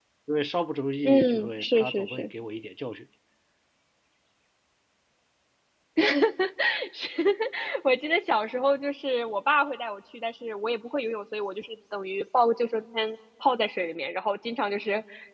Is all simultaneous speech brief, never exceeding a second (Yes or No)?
No